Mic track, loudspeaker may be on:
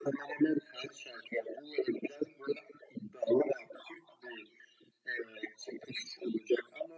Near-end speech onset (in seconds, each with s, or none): none